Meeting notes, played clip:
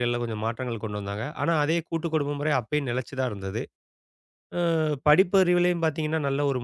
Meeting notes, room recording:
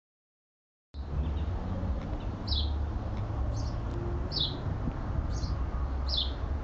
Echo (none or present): none